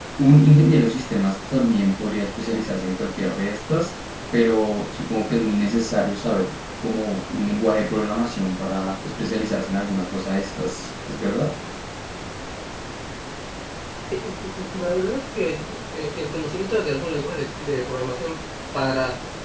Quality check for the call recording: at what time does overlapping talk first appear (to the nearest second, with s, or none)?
none